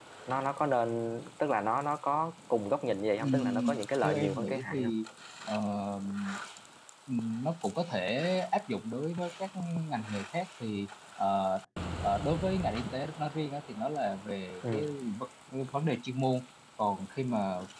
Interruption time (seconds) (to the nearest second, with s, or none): 3 s